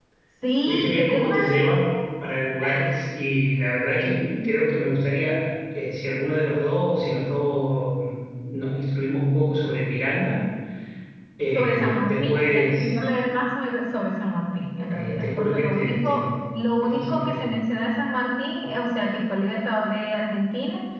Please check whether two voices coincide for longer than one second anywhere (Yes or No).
Yes